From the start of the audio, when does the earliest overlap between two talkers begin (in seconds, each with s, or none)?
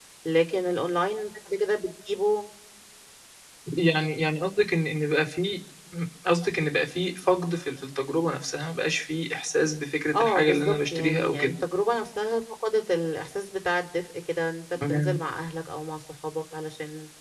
10.2 s